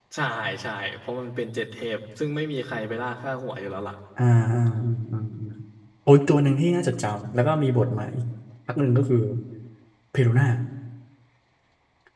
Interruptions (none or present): none